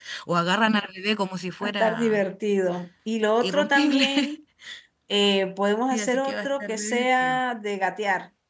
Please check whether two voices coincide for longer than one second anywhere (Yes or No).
Yes